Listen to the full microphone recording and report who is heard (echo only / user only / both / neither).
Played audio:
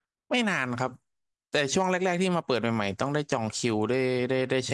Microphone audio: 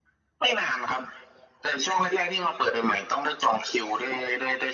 echo only